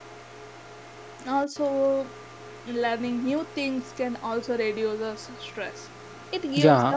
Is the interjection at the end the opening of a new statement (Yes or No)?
Yes